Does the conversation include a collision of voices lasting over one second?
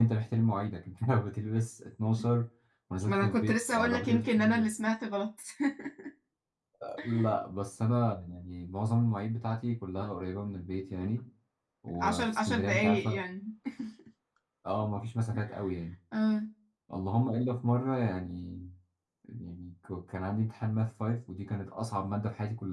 Yes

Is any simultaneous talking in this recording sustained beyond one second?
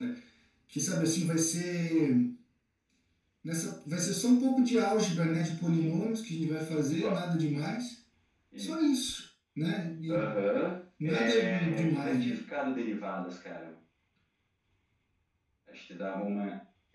Yes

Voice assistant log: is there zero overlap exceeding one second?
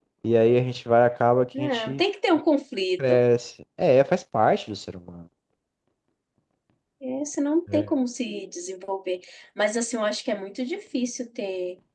Yes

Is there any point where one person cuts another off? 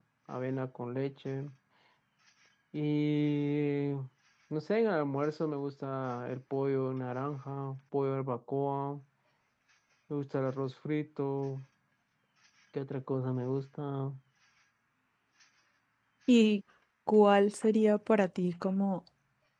No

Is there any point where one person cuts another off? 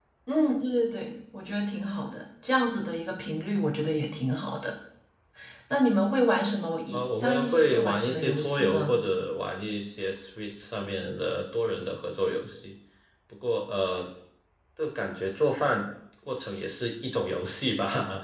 Yes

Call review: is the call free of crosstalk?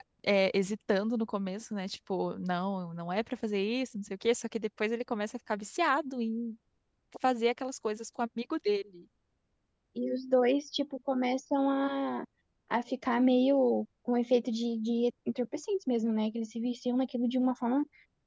Yes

